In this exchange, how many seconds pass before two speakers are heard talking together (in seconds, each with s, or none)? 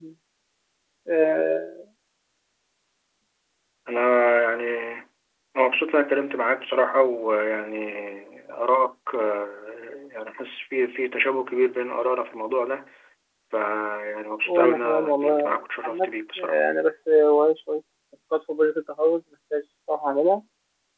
14.5 s